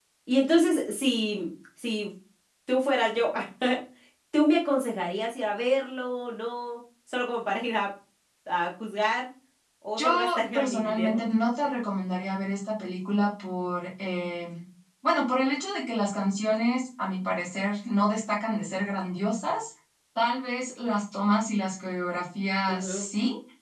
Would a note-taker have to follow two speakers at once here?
Yes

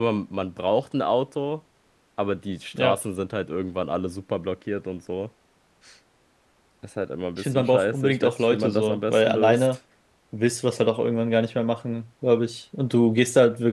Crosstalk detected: Yes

